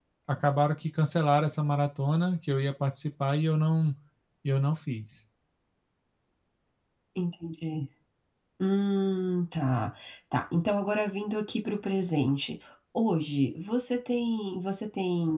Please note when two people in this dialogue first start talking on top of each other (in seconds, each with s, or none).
none